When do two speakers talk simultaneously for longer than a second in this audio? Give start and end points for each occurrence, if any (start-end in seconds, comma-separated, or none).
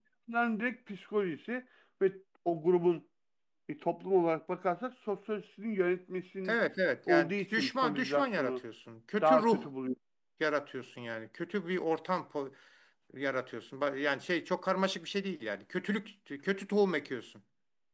7.1-8.6